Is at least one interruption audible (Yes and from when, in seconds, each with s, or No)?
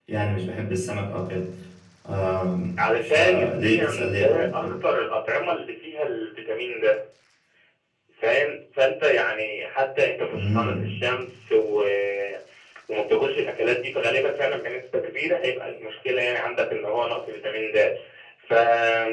Yes, from 3.0 s